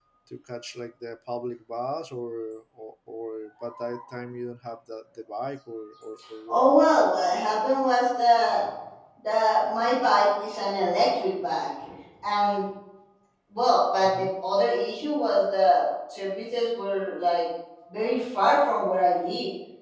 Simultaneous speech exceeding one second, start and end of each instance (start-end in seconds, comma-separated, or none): none